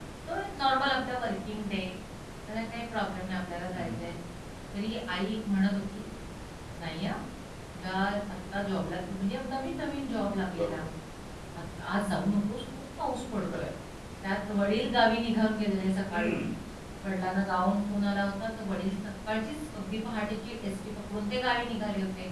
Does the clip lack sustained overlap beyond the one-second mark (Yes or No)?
Yes